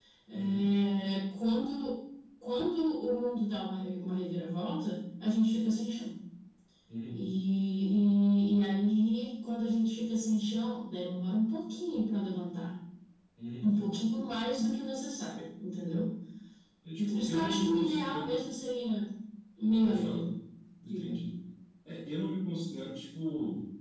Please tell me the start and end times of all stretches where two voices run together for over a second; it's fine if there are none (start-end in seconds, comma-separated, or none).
17.0-18.4